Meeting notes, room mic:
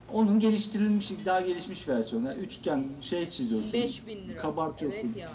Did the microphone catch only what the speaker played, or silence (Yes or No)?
No